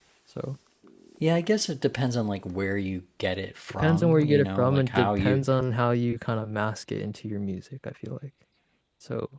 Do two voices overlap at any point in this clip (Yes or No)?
Yes